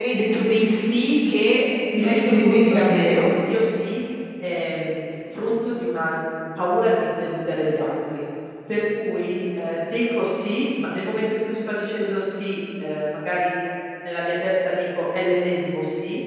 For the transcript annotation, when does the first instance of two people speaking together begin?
1.9 s

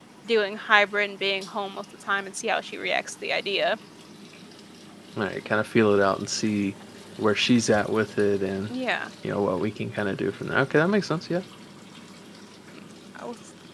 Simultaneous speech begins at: none

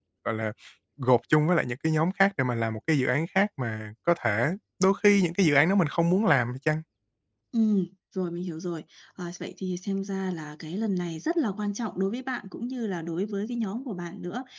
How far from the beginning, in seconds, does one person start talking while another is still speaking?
none

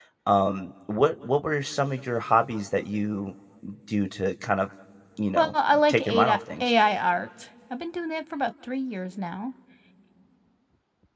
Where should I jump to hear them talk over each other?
5.3 s

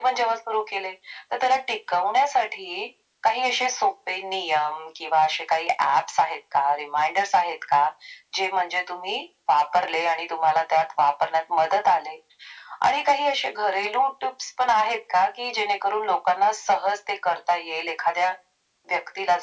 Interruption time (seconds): none

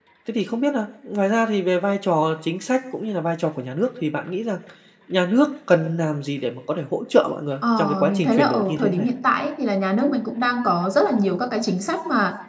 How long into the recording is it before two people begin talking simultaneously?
7.6 s

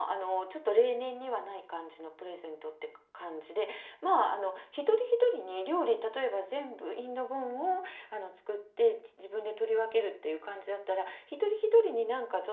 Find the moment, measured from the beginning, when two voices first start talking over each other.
none

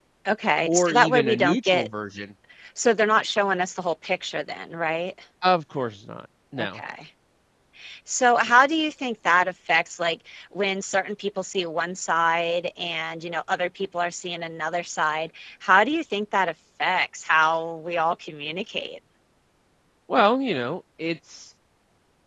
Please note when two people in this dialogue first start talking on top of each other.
0.7 s

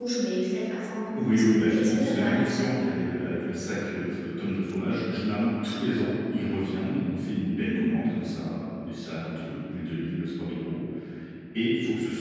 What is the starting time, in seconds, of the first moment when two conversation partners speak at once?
1.1 s

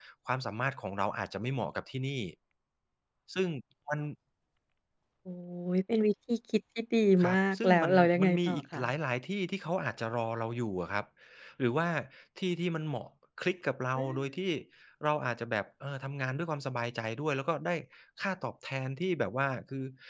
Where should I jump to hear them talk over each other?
7.2 s

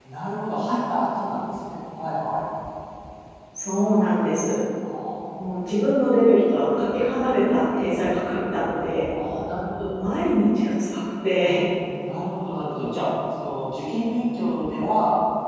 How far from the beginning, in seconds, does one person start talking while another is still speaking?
none

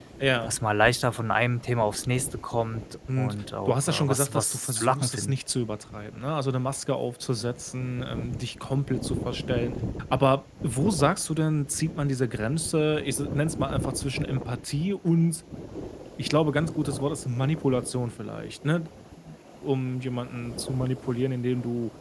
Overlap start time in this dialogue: 3.1 s

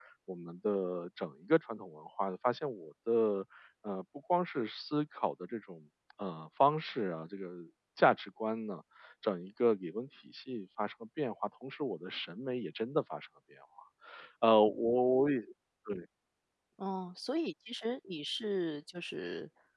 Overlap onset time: none

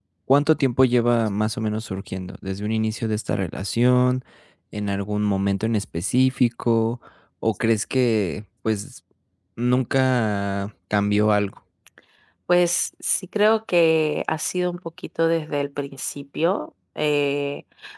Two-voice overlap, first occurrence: none

